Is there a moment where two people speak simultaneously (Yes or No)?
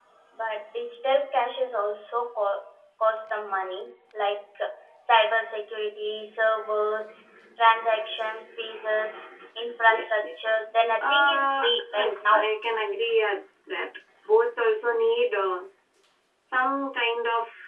Yes